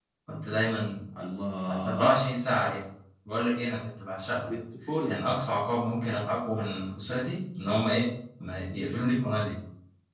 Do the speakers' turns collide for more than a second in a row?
No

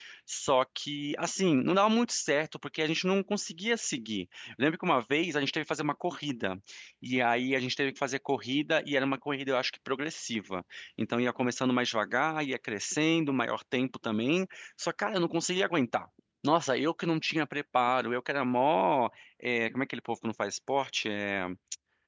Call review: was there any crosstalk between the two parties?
No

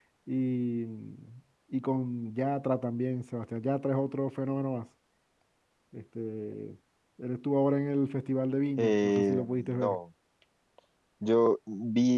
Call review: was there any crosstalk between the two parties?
Yes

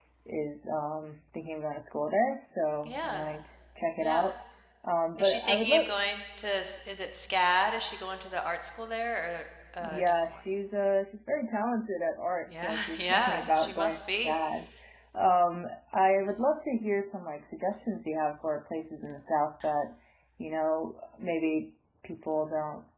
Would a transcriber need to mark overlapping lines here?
Yes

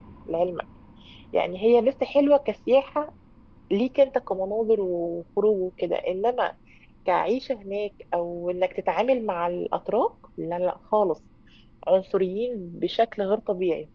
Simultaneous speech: No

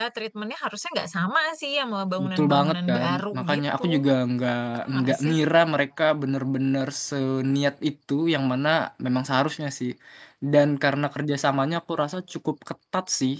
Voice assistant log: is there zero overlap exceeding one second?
No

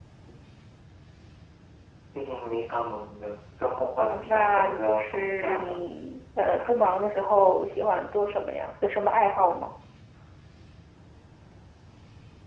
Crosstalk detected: Yes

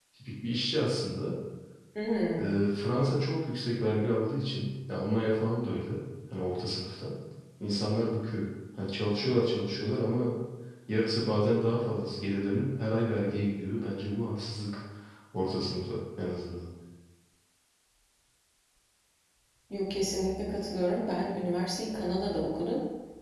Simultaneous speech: No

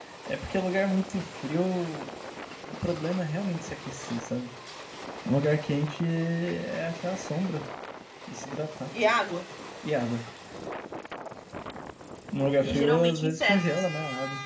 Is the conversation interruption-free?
No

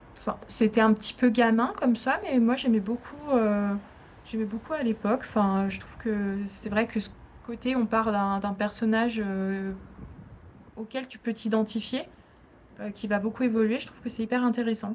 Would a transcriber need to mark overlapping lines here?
No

